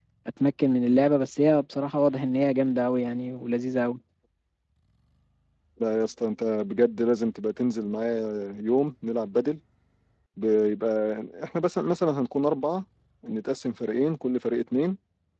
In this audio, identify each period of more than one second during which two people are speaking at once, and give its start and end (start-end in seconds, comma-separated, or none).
none